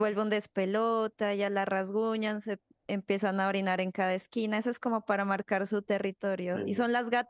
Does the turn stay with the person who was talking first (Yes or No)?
Yes